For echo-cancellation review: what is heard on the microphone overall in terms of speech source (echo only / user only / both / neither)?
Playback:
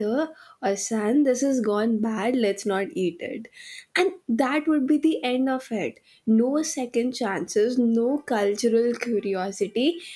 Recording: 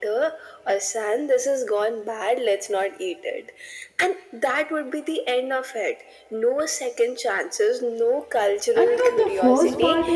both